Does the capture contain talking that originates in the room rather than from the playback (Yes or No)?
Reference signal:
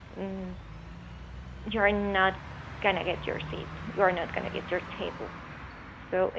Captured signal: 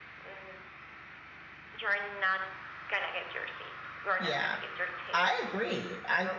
Yes